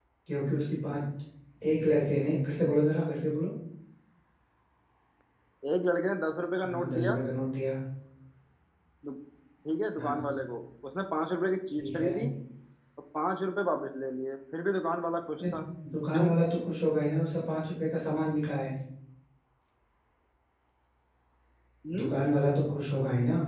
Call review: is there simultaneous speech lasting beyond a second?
No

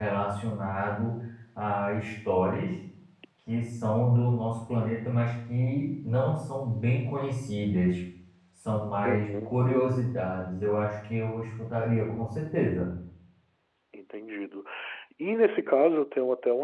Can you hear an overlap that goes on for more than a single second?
No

